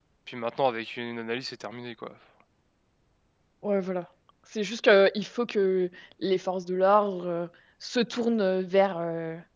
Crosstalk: none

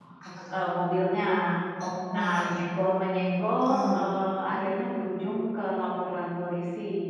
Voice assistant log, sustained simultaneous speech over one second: none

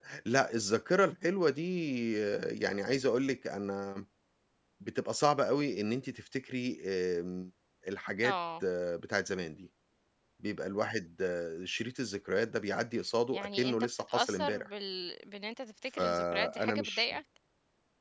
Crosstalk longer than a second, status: present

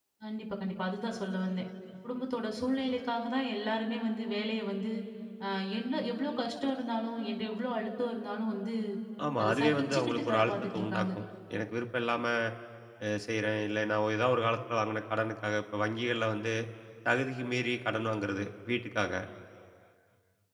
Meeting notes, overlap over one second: present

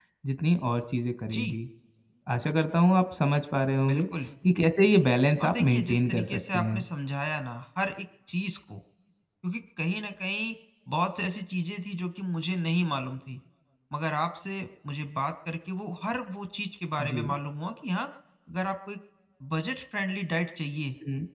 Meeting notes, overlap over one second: present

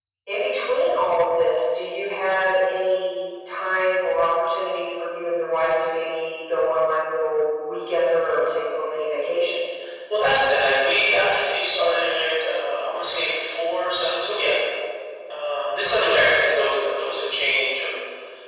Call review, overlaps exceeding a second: none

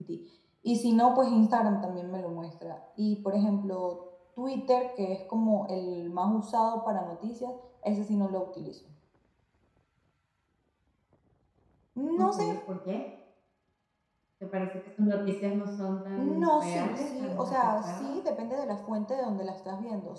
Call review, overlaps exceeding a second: present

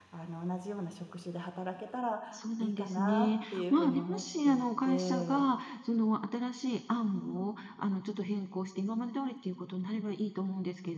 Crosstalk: present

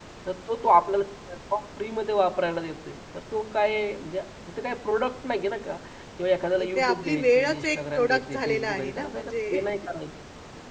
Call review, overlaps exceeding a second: present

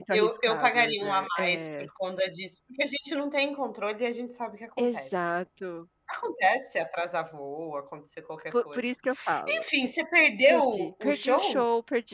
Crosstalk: present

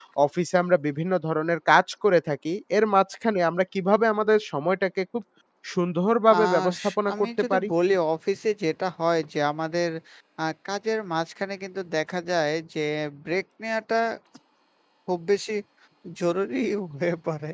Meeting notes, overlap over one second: present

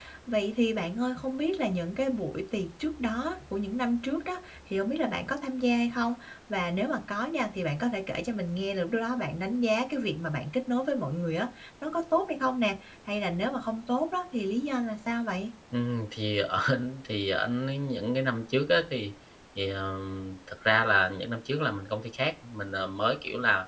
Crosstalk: none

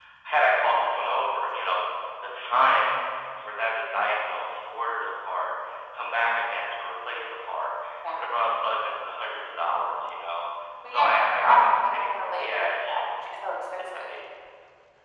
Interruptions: present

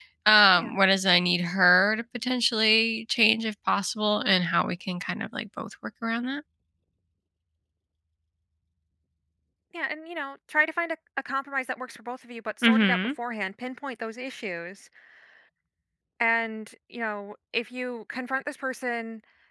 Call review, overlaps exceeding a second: none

